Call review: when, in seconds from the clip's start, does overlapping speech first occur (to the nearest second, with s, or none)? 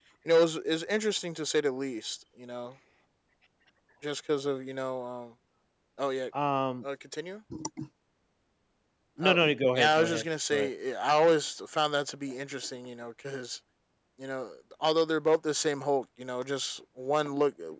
9 s